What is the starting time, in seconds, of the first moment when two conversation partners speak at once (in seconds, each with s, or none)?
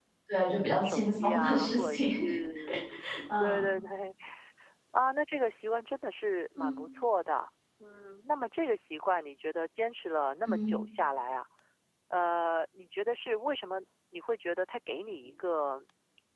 0.6 s